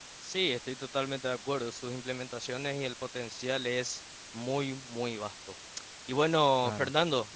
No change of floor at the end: Yes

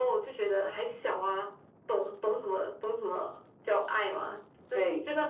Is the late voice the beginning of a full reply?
No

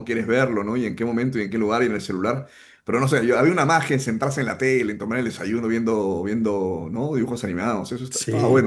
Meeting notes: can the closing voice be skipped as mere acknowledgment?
No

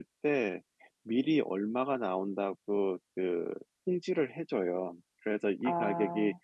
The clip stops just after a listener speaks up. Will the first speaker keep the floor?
Yes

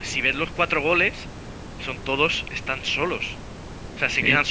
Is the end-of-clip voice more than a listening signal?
No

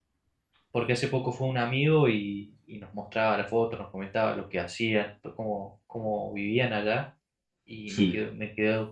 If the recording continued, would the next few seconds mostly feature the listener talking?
No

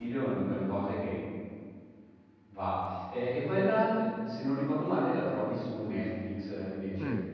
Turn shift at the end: Yes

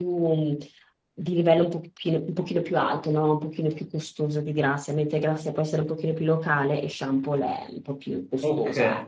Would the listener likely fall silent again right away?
No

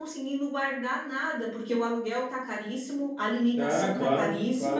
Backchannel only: No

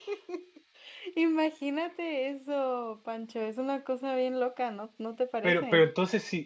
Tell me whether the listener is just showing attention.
No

